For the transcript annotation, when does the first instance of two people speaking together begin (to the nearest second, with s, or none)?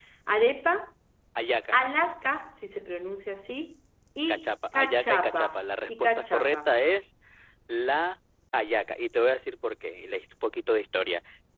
4 s